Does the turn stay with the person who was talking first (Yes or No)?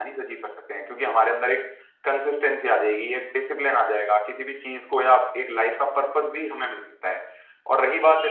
No